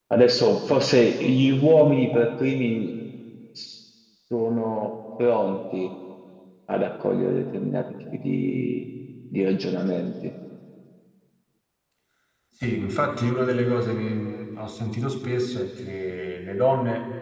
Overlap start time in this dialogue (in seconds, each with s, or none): none